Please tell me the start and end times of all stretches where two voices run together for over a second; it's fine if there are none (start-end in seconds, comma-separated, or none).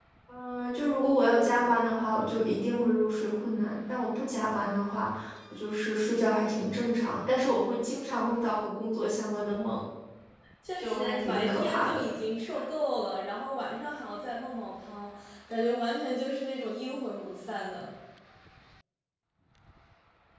10.8-12.0